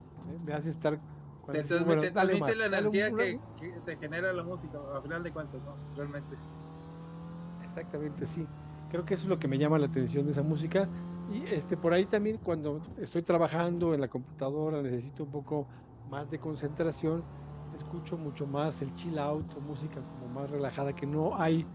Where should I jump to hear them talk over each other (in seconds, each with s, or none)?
1.5 s